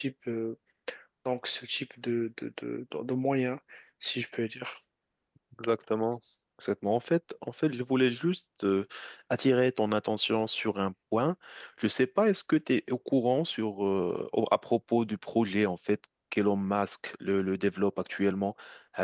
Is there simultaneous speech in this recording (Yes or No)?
No